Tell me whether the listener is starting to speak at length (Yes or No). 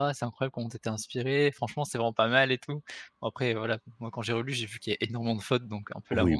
Yes